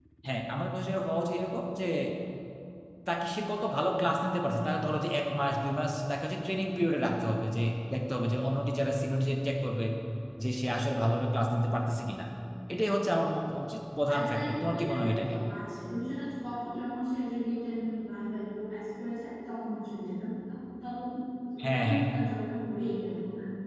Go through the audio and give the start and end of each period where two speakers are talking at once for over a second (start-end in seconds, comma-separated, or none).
14.1-15.4